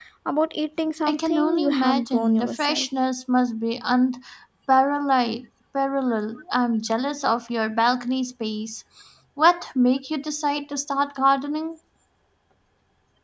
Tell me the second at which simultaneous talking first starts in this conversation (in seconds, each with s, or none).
1.1 s